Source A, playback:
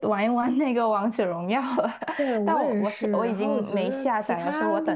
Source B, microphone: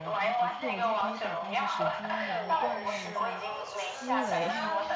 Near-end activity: present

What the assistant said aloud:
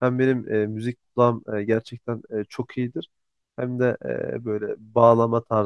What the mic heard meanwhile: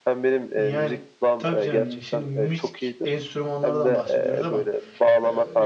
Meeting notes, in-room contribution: present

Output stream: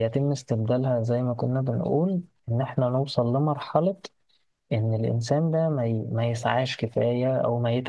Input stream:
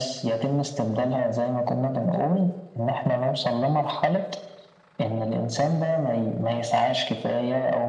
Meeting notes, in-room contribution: none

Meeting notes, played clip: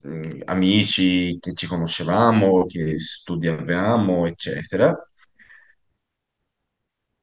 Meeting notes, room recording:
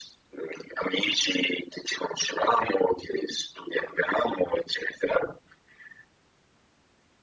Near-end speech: none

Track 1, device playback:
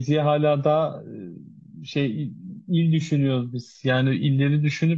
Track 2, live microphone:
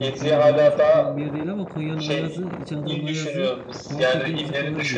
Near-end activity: present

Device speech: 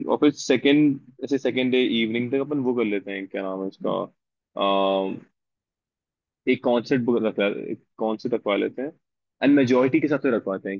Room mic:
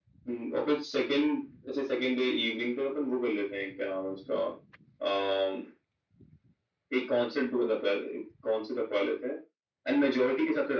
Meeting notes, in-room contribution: none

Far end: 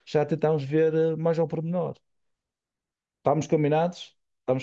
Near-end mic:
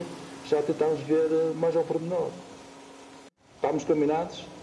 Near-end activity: none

